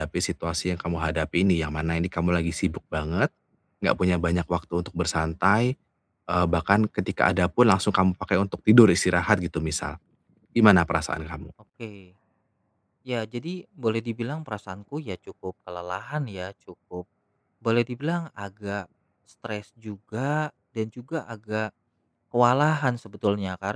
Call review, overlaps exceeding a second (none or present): none